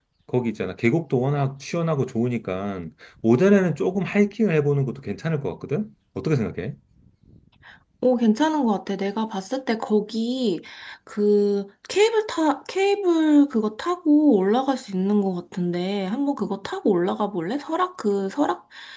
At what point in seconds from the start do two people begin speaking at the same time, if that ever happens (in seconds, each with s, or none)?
none